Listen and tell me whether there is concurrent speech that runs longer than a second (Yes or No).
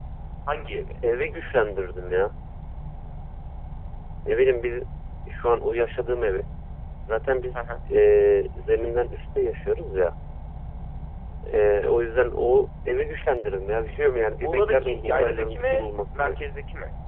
Yes